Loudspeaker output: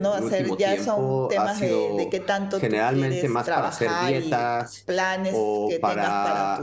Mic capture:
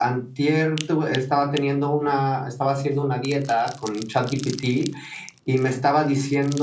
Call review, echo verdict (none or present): none